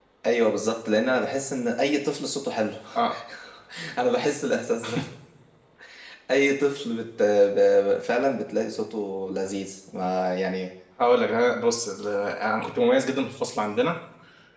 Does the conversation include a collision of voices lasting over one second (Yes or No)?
No